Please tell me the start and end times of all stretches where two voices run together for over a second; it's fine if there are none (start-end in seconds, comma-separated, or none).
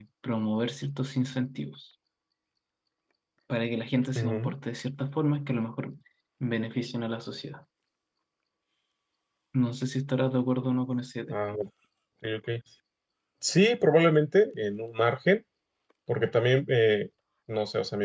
none